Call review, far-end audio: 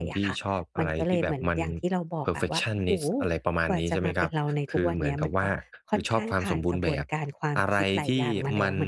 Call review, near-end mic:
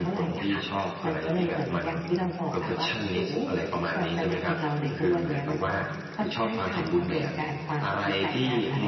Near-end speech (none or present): present